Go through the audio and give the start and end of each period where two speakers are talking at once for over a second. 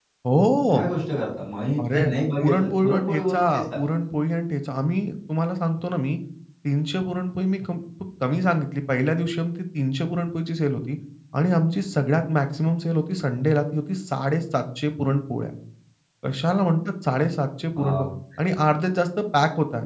1.9-3.8

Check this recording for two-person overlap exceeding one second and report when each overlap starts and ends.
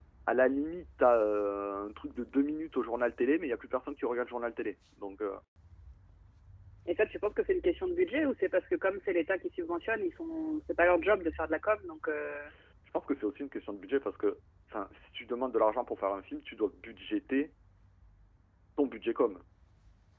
none

